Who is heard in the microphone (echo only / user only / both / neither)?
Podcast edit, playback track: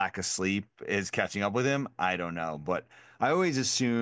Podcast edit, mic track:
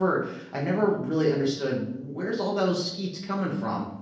user only